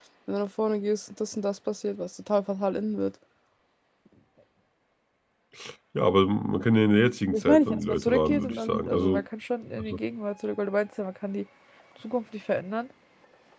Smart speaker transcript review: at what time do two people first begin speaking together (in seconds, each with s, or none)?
7.3 s